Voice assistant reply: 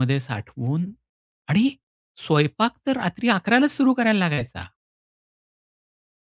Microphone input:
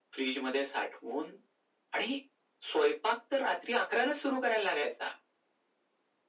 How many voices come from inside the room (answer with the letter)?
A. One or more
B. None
B